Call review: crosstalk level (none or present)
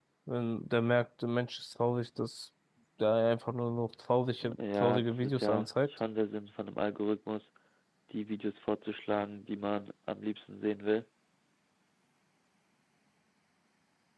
present